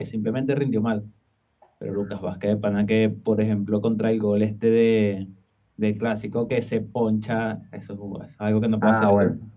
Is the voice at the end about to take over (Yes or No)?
Yes